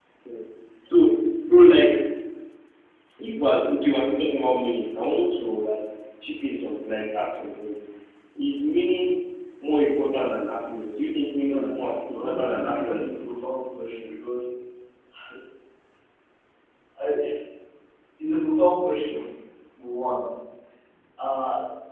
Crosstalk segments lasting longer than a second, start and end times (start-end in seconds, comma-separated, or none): 11.4-13.2